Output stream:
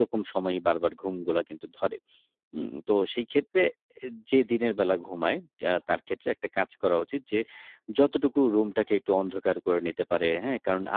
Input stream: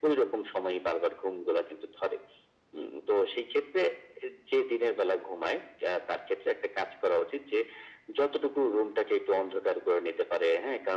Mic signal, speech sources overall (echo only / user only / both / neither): echo only